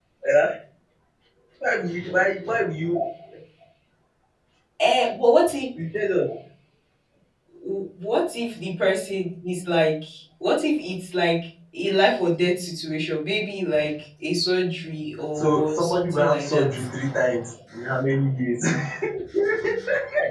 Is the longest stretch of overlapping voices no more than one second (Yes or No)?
No